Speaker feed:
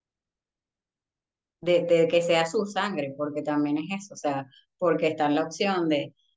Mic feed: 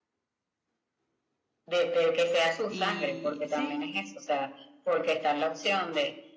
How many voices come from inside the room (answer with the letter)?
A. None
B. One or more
B